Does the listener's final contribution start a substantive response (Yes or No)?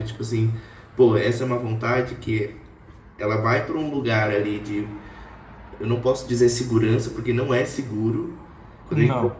No